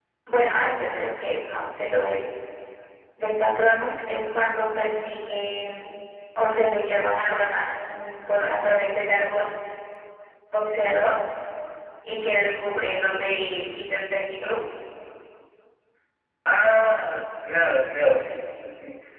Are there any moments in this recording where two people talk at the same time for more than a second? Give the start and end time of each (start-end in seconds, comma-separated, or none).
none